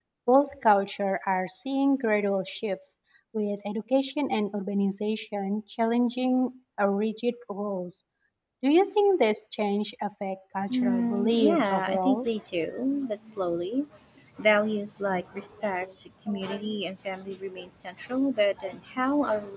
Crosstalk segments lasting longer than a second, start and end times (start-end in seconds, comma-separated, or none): 10.7-12.3